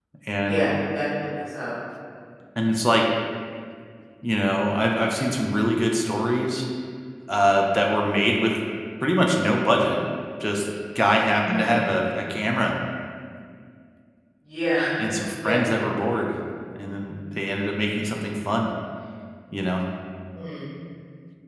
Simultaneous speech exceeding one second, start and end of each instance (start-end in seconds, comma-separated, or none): none